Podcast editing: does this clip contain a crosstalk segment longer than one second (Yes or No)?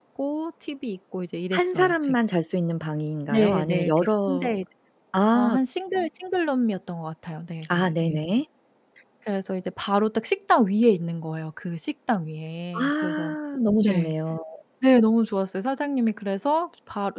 Yes